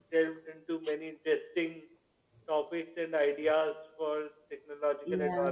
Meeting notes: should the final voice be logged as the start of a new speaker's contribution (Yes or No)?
No